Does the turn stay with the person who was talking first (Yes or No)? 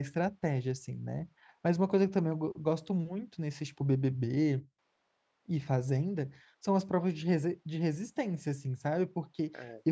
Yes